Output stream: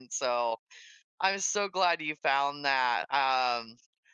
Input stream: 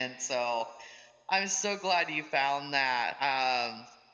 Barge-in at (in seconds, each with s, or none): none